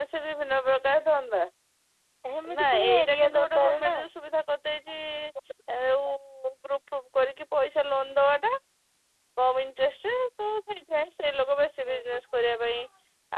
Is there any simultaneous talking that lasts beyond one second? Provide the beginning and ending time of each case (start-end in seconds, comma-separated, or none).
2.6-3.9